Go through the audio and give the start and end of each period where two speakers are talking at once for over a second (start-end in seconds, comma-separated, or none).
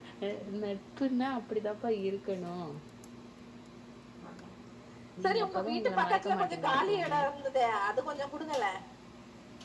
5.2-7.2